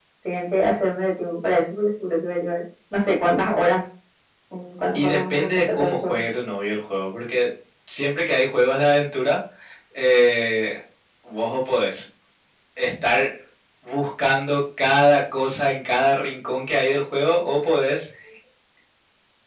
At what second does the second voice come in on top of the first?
4.9 s

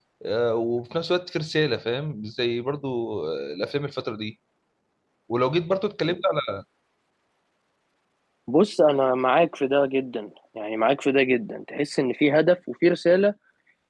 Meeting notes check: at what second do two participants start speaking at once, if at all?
none

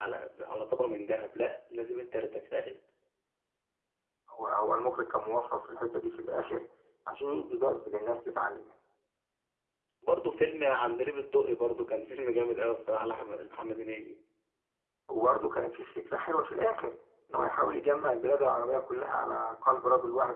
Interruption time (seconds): none

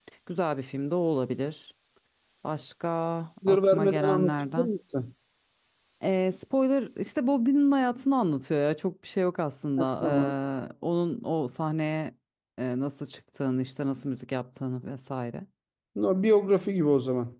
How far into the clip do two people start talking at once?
3.5 s

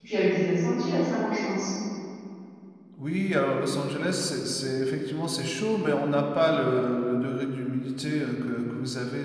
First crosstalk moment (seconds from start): none

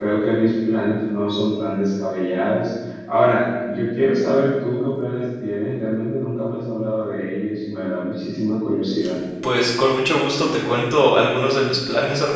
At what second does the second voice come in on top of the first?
none

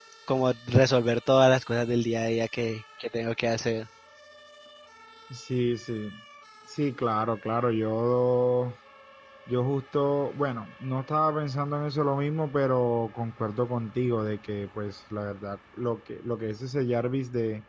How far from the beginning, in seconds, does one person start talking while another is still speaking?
none

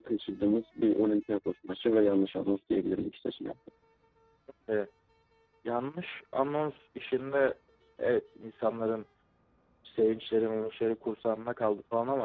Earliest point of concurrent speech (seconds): none

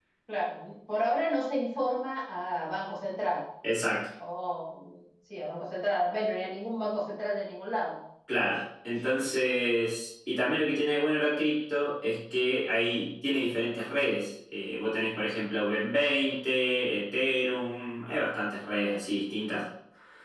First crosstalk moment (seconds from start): none

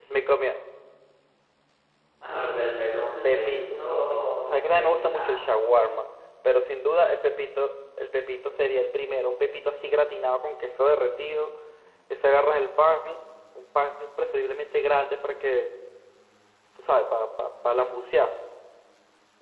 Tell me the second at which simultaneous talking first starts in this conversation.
3.0 s

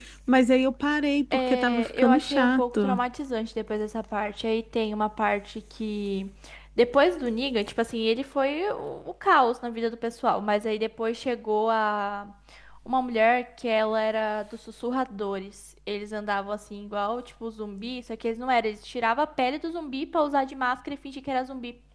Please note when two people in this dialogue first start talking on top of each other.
1.3 s

